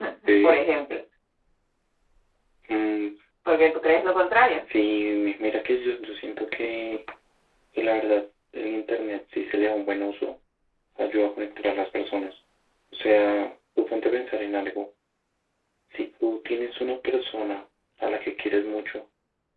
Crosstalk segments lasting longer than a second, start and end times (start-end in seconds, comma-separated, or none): none